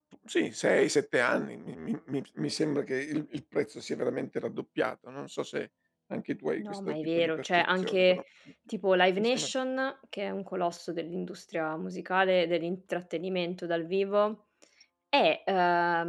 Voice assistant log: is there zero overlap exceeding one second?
No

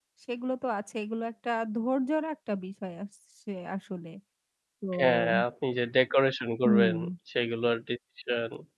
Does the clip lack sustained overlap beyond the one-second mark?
Yes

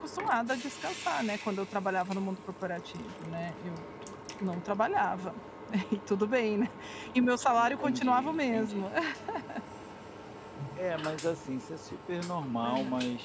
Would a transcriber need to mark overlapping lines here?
Yes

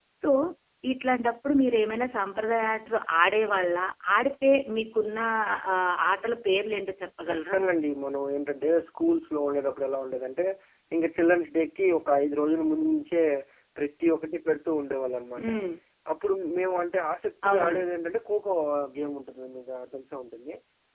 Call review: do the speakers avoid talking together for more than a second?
Yes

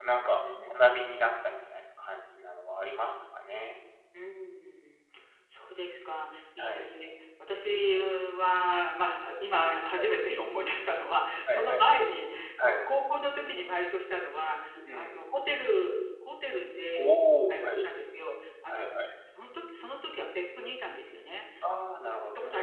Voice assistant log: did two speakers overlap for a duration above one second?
No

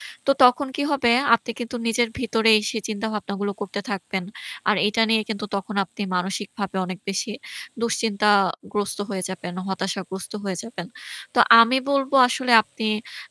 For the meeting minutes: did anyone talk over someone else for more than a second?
No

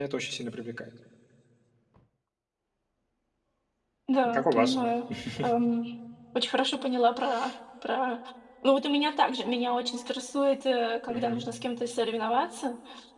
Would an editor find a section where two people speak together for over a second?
No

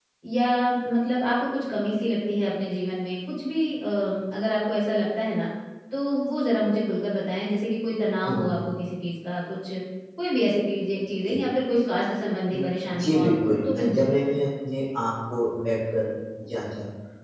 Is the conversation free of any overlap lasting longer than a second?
No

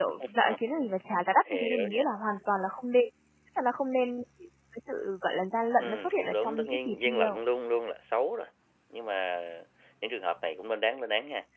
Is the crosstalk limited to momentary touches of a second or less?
No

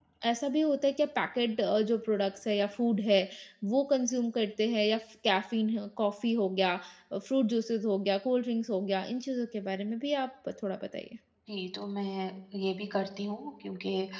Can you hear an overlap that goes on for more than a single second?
No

